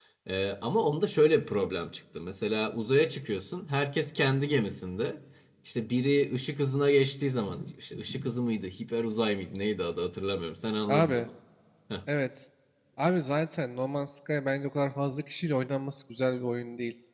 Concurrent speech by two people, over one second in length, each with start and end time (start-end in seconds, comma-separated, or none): none